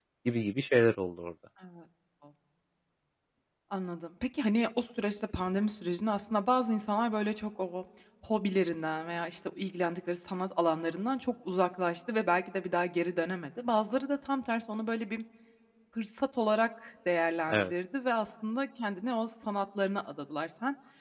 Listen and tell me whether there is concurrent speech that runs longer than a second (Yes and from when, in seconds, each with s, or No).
No